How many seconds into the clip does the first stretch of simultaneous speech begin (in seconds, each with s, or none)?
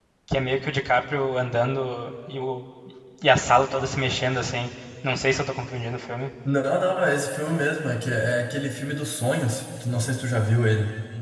none